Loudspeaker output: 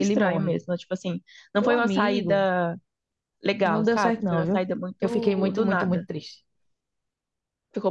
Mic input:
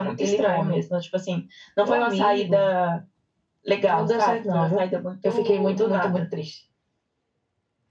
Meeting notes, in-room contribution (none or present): none